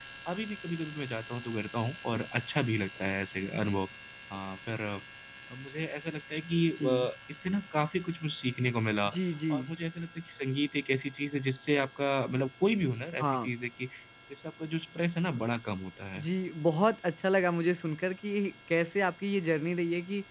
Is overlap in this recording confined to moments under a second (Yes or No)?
Yes